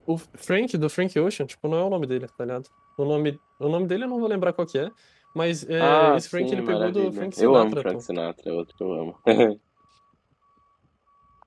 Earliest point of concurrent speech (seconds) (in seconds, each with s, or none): 5.8 s